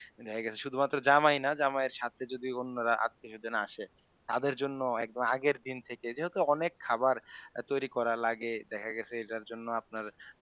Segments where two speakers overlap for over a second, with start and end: none

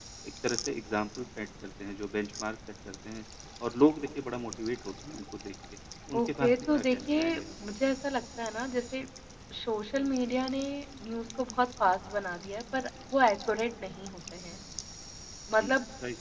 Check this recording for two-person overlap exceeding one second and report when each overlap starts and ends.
6.2-7.6

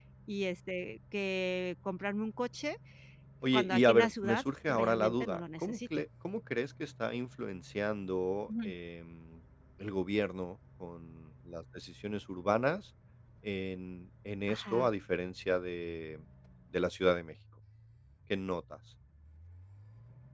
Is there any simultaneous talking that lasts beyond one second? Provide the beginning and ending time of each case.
3.5-5.8

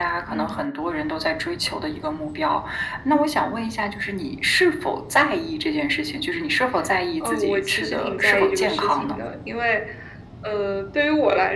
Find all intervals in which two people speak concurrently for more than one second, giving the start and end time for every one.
7.2-9.2

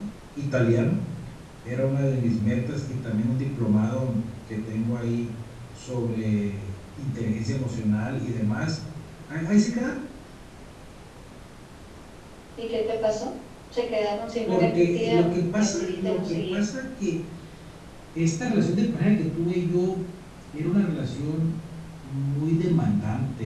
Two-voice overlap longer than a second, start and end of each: 14.5-16.6

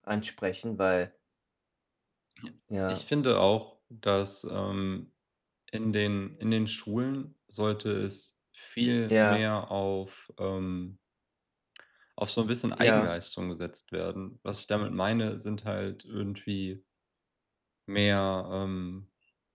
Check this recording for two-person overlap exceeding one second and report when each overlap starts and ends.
none

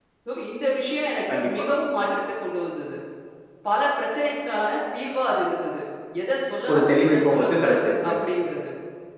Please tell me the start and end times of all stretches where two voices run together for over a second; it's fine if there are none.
6.7-8.1

